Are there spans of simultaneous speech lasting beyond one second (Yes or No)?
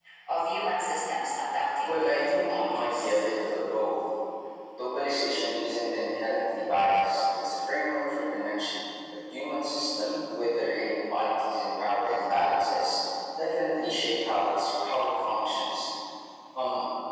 Yes